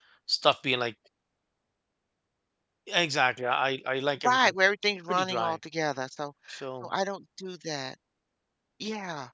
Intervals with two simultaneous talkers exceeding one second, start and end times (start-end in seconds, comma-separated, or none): none